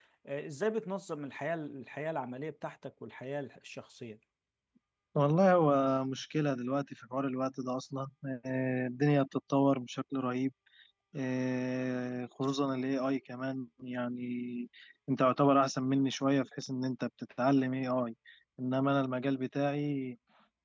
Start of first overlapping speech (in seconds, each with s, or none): none